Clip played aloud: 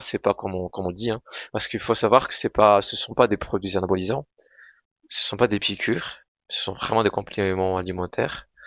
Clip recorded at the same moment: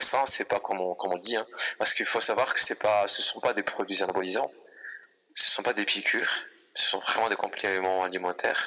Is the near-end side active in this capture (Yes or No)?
No